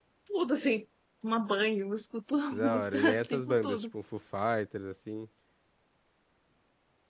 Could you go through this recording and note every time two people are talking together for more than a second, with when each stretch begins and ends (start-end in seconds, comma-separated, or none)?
2.5-3.9